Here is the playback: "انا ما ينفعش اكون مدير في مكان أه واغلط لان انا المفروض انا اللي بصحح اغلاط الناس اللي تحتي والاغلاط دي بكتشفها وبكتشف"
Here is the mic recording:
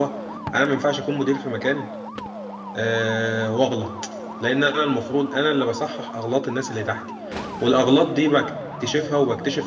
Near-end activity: none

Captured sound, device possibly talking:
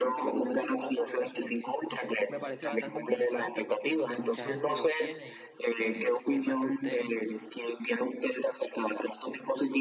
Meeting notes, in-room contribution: present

